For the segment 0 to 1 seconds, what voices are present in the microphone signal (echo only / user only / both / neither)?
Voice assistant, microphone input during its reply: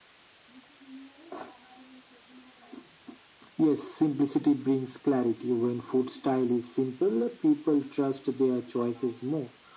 neither